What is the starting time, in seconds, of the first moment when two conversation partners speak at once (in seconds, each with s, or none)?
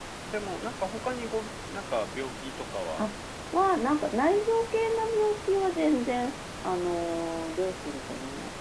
none